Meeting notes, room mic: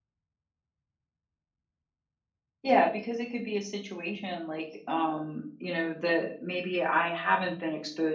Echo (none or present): none